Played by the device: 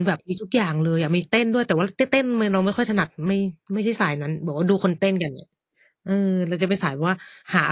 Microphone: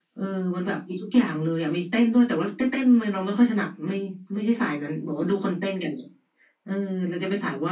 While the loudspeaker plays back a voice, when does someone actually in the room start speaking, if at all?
none

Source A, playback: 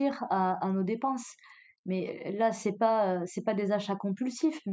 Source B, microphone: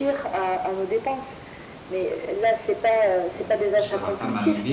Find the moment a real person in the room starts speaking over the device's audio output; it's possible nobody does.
3.3 s

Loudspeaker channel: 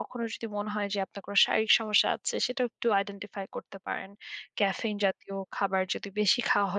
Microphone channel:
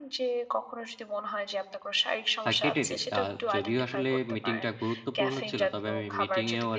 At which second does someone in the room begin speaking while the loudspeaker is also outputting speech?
2.5 s

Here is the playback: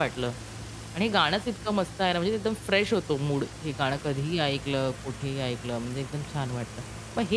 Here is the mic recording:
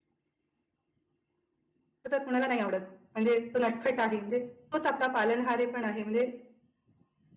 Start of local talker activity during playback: 2.1 s

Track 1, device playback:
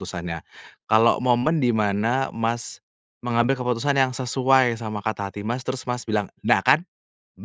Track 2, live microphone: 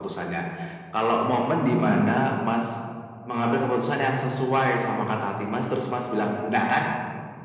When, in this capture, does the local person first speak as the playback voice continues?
none

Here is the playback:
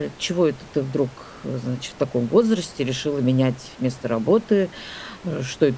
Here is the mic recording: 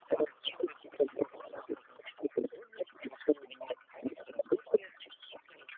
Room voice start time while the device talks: none

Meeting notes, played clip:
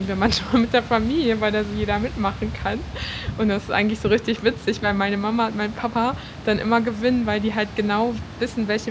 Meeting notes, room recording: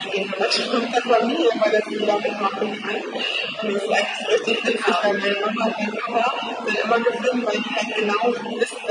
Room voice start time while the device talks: 4.6 s

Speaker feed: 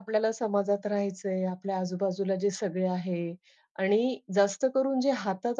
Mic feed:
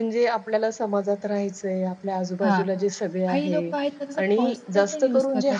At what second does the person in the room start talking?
2.4 s

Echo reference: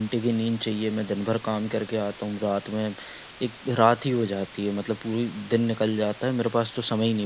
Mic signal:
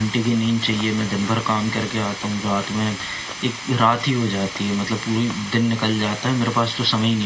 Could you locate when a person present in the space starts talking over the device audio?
none

